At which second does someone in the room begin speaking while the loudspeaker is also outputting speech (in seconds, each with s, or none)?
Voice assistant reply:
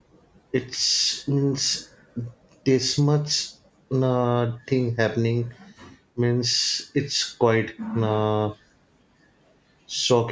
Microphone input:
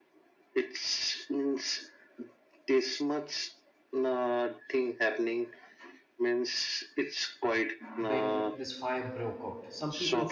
8.0 s